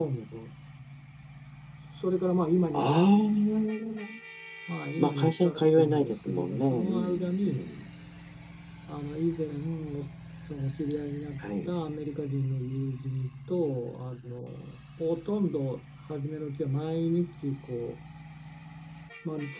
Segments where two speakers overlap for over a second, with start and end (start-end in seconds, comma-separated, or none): 5.0-7.7